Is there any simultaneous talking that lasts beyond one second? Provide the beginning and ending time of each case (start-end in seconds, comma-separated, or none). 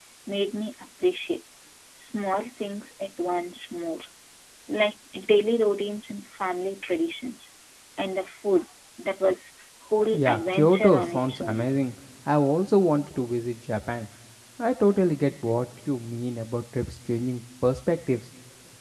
10.1-11.7